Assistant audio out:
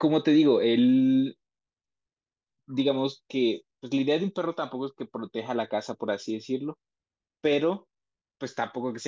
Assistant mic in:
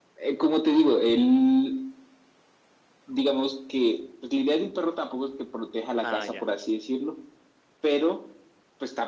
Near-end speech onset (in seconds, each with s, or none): 6.0 s